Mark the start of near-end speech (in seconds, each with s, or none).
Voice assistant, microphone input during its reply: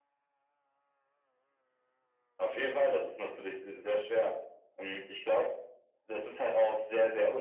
none